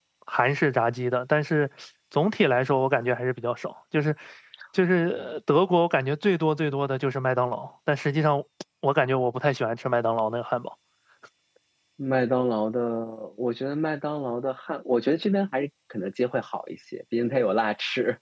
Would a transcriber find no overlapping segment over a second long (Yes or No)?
Yes